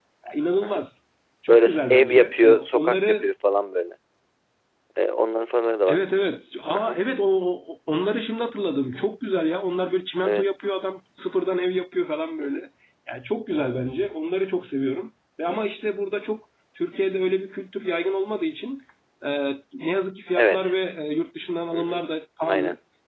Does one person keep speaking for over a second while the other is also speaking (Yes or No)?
Yes